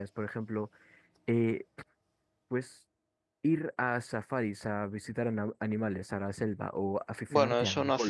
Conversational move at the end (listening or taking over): taking over